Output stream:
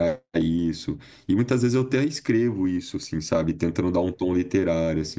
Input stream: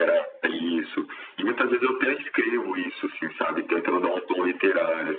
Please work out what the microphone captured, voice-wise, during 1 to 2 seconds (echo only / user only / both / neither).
echo only